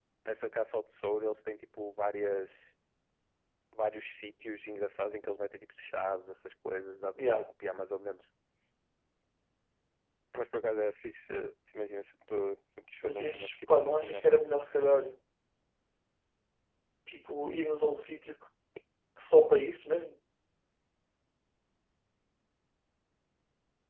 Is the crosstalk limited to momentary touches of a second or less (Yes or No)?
No